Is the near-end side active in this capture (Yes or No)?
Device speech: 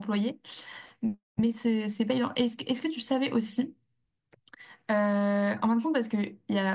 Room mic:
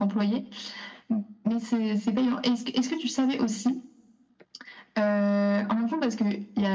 No